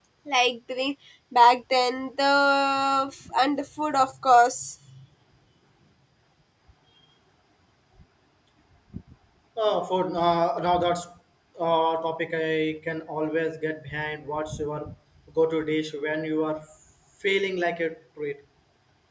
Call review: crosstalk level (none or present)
none